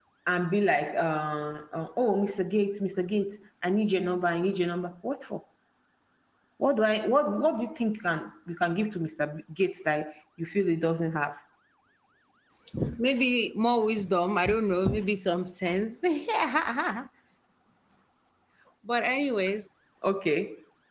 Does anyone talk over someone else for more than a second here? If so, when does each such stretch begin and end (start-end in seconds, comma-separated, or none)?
none